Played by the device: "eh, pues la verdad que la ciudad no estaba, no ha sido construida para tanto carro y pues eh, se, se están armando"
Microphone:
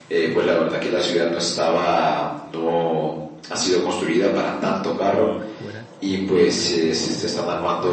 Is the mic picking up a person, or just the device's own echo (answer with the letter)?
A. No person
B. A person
B